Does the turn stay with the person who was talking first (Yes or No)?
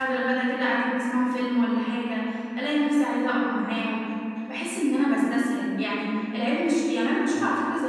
Yes